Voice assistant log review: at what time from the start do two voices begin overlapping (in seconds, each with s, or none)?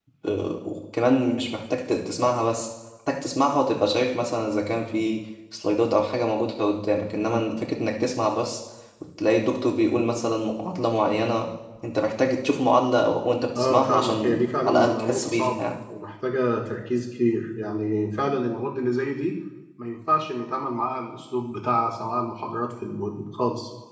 13.6 s